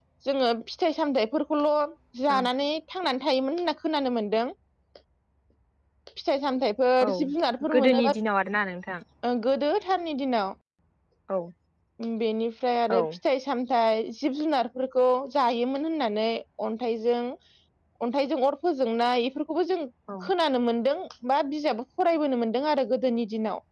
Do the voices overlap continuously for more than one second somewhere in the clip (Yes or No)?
No